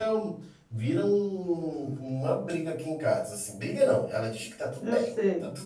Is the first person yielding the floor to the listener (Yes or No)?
No